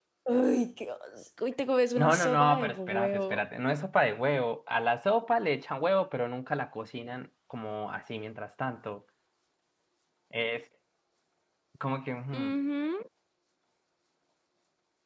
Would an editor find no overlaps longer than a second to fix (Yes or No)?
No